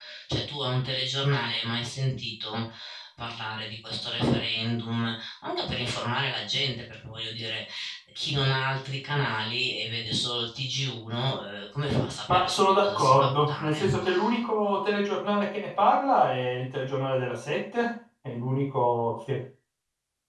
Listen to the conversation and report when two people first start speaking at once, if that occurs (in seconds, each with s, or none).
12.3 s